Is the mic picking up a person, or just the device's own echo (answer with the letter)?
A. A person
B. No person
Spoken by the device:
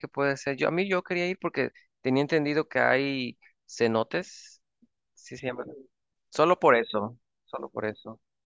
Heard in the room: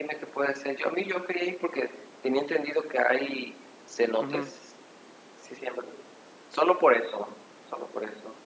A